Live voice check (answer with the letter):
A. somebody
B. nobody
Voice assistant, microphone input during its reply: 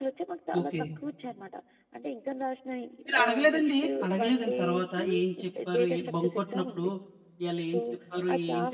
A